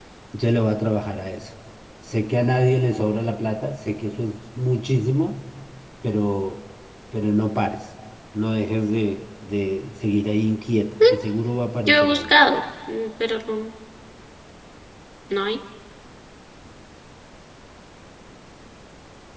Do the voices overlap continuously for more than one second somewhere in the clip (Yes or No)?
No